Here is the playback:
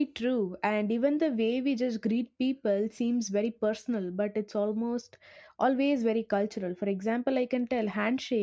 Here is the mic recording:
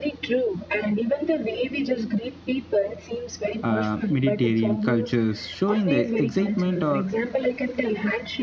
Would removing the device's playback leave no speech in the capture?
No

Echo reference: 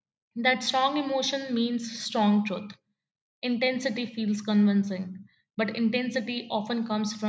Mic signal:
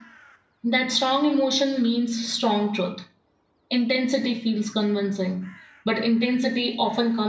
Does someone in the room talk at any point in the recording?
No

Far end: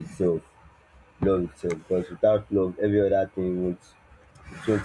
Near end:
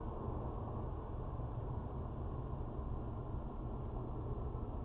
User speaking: No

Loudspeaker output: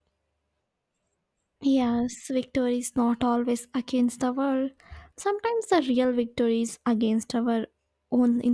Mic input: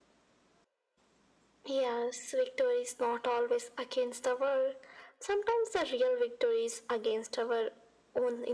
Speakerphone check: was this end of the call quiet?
Yes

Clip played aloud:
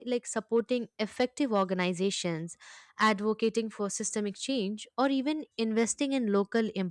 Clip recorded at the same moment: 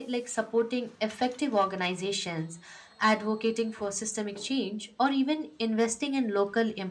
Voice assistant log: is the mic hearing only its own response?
Yes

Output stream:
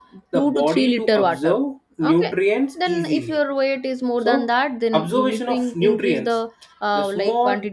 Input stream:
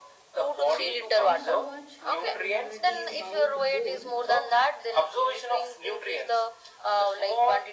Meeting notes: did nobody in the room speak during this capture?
No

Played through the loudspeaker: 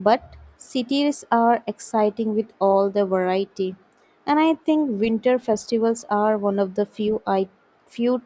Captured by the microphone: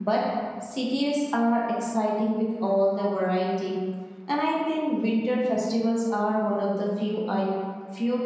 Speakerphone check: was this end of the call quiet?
Yes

